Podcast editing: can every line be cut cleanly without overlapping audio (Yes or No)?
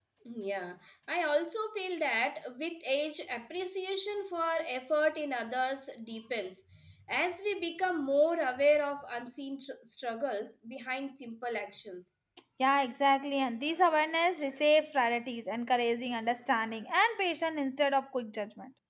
Yes